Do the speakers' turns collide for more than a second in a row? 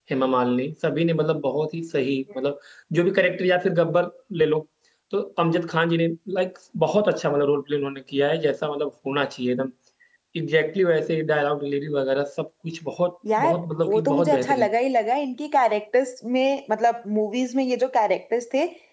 Yes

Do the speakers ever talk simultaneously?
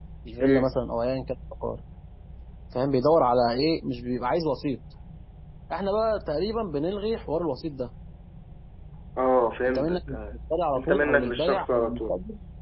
Yes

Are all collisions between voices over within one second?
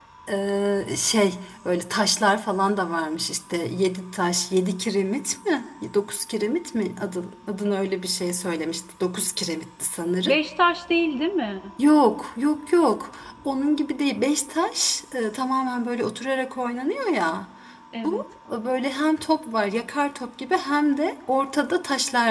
Yes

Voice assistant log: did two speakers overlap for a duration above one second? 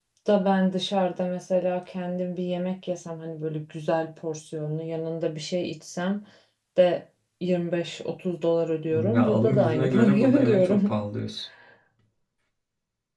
Yes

